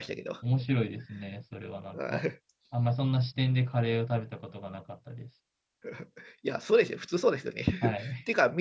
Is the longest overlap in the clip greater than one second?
No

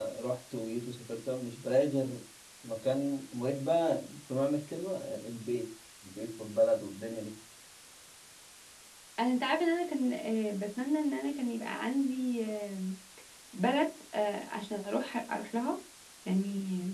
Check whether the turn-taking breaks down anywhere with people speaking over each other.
No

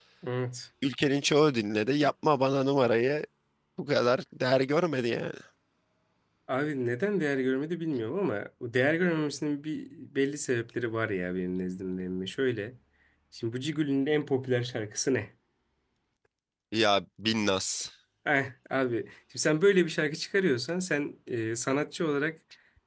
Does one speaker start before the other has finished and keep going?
No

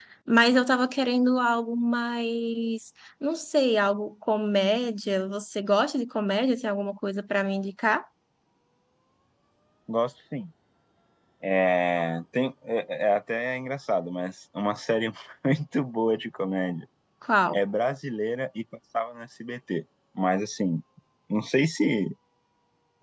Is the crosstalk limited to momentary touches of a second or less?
Yes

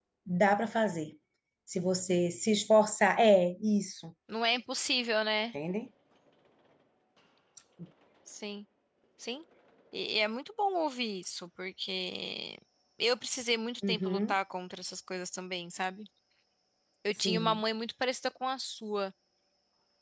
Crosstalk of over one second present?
No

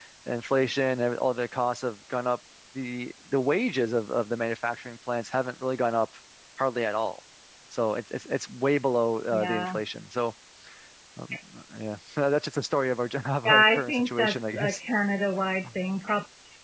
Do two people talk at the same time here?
Yes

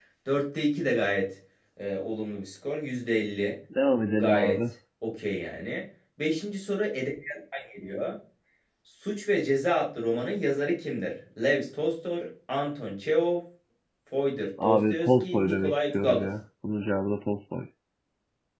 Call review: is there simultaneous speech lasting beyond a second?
Yes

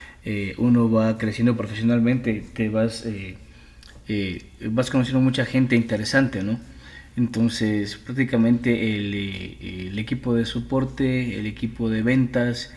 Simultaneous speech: No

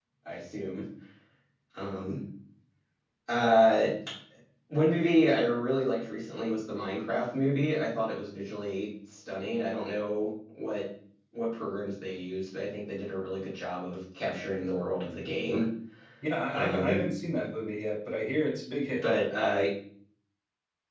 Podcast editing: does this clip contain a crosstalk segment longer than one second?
No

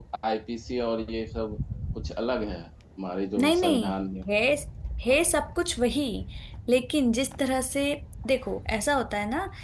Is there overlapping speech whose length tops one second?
No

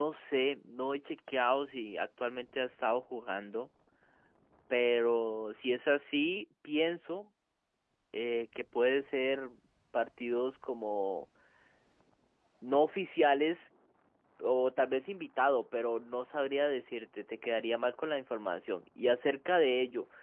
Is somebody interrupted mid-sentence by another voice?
No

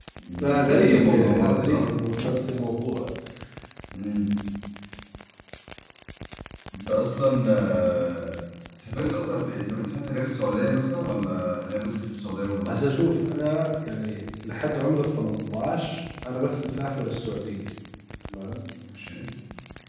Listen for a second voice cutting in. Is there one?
Yes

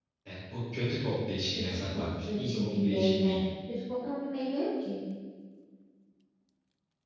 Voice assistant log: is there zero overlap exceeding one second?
No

